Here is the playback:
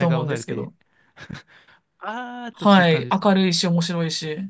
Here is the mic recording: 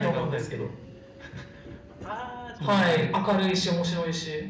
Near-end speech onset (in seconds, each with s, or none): 2.5 s